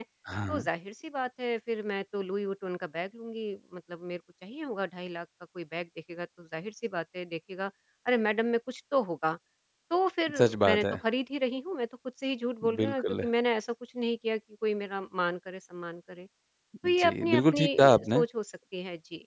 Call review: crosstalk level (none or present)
present